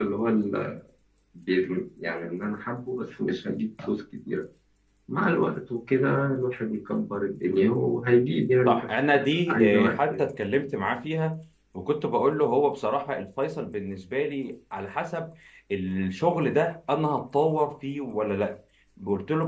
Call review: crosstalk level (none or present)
present